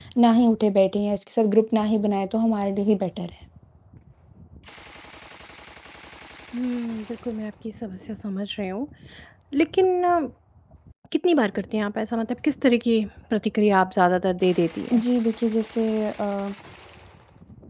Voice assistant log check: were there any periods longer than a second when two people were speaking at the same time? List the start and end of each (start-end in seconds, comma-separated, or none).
none